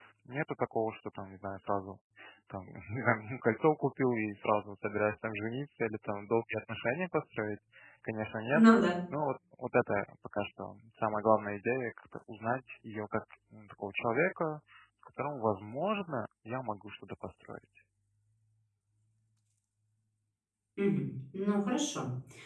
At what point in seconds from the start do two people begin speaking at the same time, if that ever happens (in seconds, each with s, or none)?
none